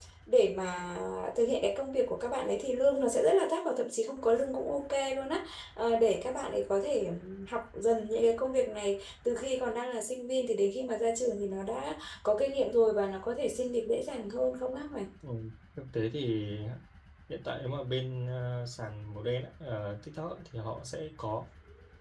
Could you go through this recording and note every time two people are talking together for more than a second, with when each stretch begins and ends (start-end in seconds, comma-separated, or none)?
none